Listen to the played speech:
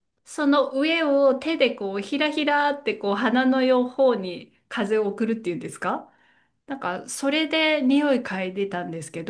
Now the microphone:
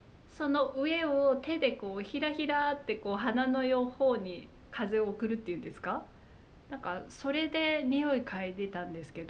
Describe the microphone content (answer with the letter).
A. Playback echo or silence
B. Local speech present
A